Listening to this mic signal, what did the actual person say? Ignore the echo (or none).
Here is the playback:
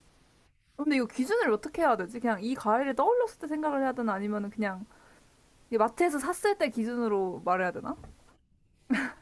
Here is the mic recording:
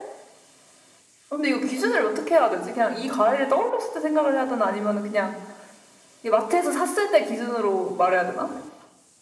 none